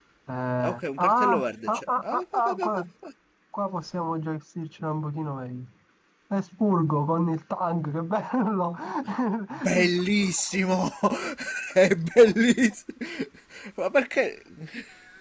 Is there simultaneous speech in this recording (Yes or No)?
Yes